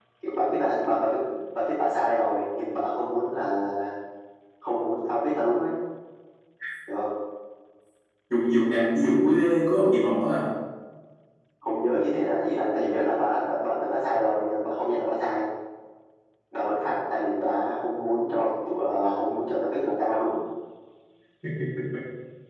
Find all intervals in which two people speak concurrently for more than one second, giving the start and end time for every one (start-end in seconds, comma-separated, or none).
none